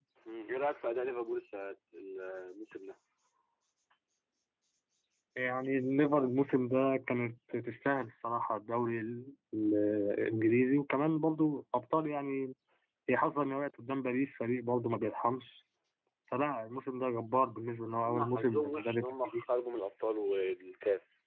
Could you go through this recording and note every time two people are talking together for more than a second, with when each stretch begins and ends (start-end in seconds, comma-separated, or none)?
18.0-19.4